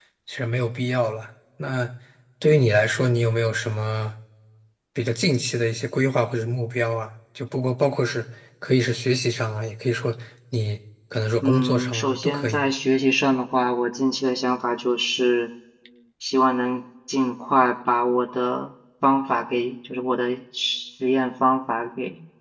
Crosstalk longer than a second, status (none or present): present